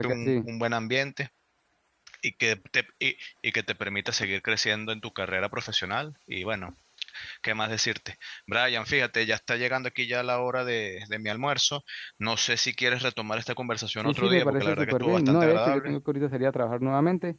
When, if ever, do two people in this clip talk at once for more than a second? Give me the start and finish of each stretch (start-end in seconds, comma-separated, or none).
14.0-15.9